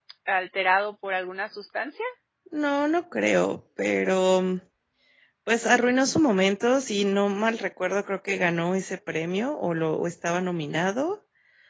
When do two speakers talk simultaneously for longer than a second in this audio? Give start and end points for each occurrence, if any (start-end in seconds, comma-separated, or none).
none